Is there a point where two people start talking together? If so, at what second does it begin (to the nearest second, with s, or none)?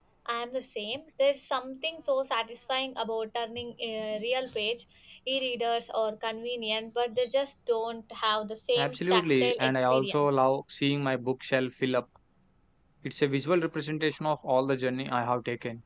9 s